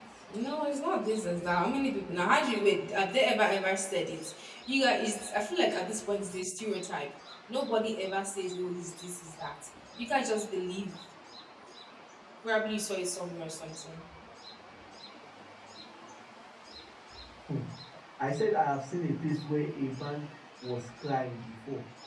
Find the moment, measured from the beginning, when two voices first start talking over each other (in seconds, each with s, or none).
none